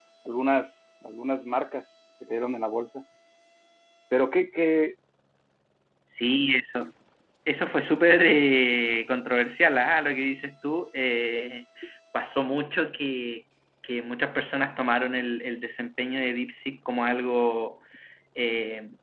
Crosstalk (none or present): none